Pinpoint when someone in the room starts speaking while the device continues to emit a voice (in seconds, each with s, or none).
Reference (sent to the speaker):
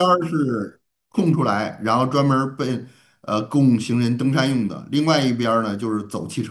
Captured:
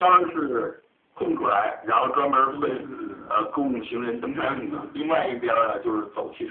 2.5 s